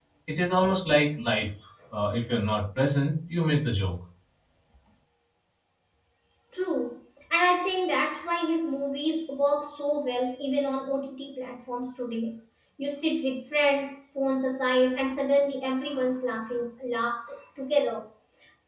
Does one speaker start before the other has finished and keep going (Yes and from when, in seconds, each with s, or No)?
No